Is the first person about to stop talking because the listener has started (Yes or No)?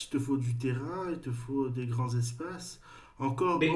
No